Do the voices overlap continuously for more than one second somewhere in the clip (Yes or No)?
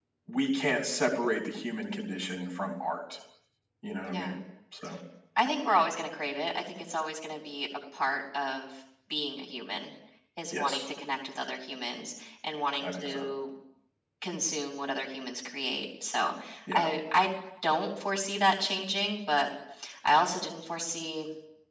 No